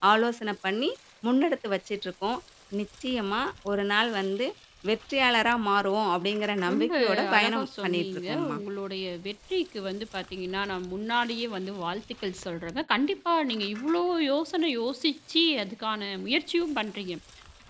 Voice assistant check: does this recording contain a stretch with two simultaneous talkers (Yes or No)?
Yes